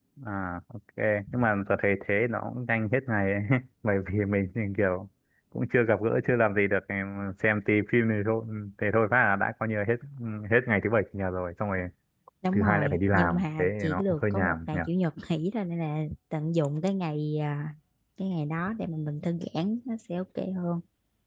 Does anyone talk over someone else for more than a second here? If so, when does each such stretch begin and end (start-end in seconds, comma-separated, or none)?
12.5-14.8